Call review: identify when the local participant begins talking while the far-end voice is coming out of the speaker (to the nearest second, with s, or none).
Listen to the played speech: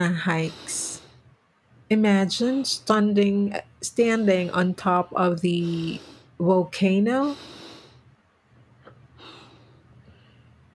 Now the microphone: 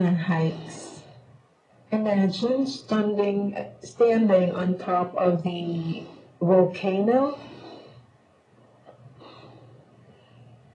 none